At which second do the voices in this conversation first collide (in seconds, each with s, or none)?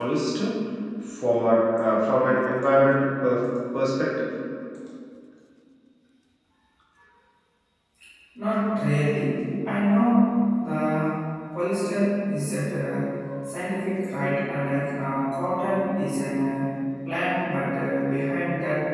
none